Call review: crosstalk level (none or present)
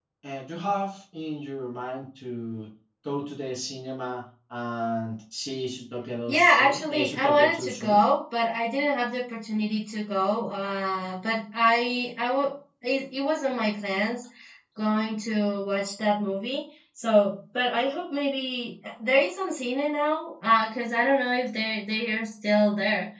present